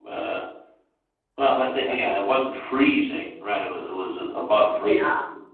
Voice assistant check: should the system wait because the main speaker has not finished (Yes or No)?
Yes